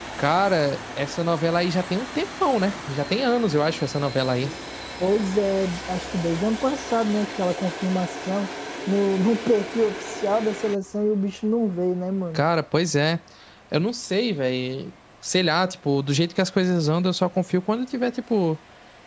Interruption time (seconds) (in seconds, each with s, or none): none